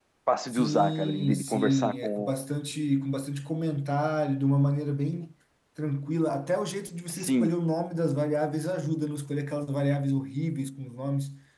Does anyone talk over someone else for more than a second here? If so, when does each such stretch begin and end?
0.5-2.3

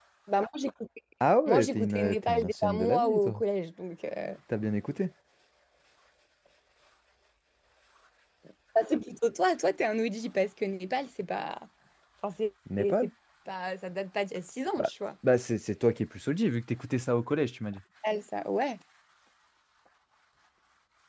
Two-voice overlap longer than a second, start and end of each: 1.5-3.4

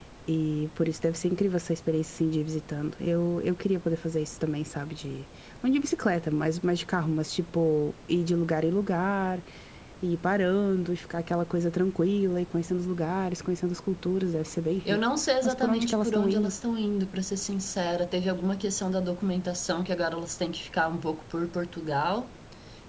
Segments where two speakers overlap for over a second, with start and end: 14.8-16.5

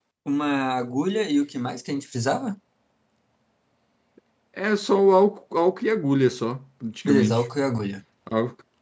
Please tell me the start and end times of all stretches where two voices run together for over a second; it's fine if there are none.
none

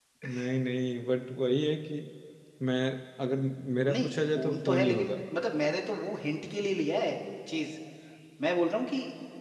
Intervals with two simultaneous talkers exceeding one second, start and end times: 3.9-5.1

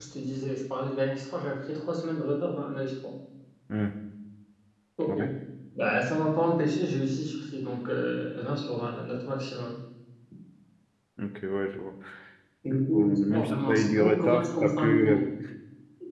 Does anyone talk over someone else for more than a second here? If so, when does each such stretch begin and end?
12.7-15.2

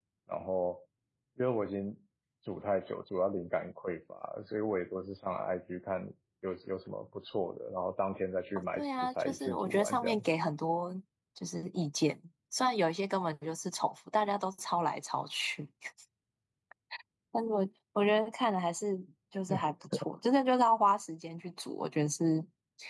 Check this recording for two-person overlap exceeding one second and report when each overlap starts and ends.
8.8-10.2

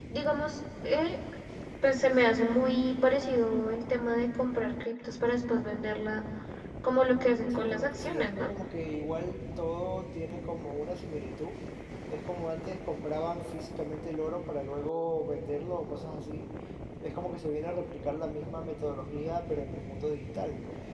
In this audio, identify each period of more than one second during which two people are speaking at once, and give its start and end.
7.1-8.5

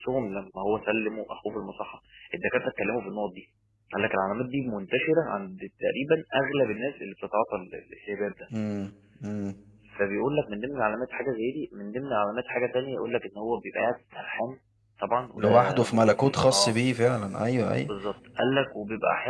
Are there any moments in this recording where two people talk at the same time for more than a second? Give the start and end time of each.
15.3-16.8

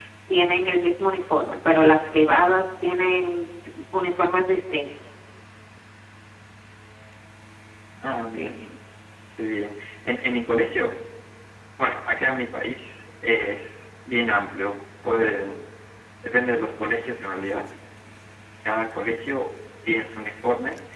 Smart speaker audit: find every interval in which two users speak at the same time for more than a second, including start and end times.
none

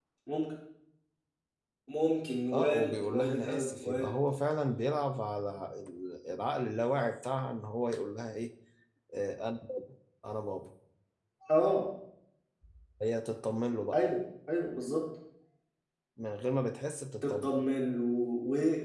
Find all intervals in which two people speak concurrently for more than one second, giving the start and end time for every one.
2.5-4.1

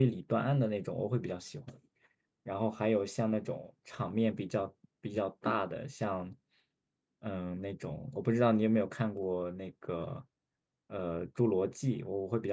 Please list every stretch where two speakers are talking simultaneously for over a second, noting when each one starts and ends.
none

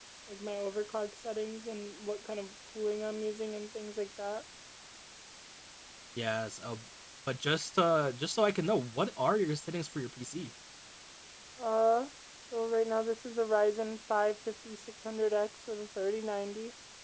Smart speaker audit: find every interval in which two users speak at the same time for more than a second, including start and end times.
none

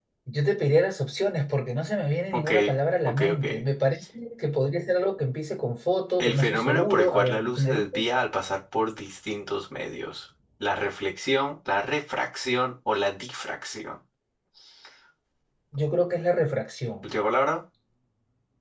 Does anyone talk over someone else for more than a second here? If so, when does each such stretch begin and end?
6.2-8.0

